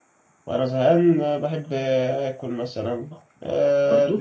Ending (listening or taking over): listening